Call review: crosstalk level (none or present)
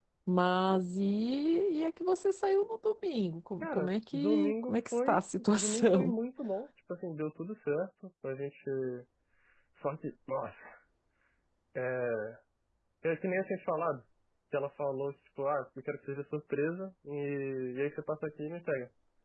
present